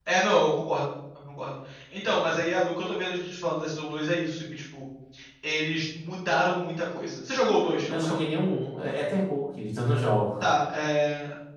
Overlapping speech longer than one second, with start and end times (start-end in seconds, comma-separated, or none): none